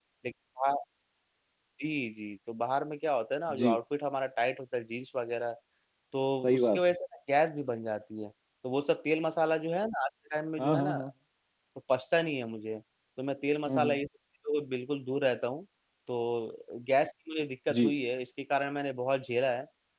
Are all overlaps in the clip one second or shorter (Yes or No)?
Yes